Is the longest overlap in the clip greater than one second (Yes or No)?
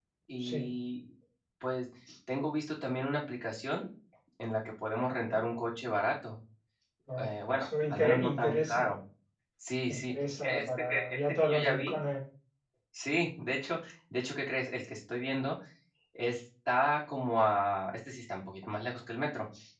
Yes